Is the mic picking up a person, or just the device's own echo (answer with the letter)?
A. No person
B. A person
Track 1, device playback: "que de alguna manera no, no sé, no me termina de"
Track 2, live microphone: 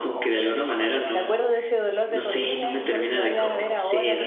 B